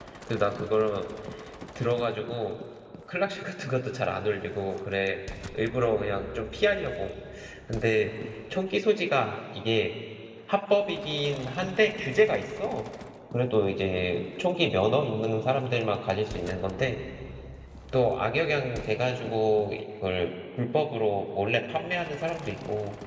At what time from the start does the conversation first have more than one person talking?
none

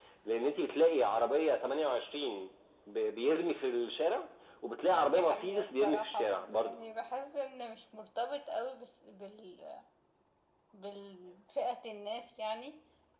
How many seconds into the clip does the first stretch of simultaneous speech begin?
4.9 s

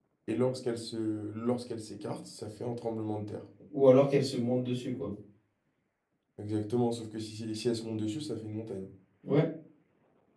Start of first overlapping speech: none

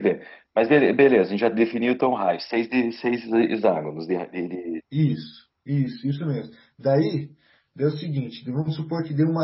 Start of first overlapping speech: none

